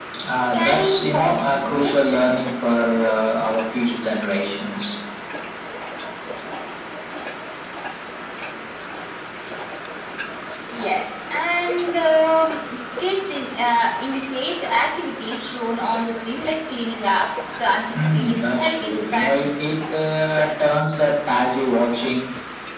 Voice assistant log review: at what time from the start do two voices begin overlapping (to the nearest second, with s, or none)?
1 s